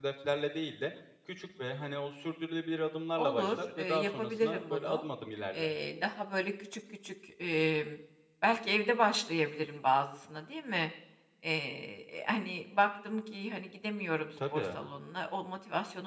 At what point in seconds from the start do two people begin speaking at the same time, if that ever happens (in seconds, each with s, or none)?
3.2 s